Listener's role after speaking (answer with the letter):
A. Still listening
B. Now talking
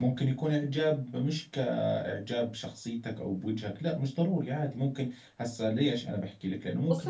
B